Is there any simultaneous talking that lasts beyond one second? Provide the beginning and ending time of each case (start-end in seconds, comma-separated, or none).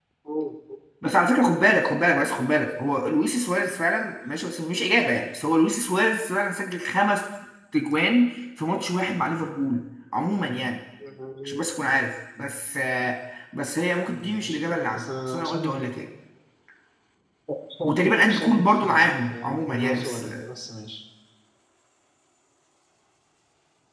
14.1-15.8, 17.8-20.4